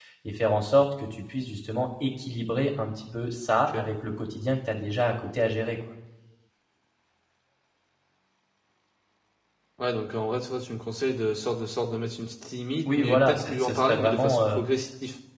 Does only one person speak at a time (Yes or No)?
No